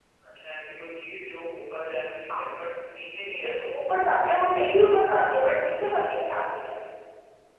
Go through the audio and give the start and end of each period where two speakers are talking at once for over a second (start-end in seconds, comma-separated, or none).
none